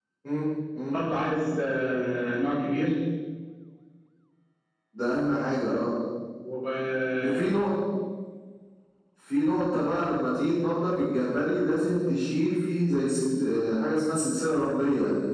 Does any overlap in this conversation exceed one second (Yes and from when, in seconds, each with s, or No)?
No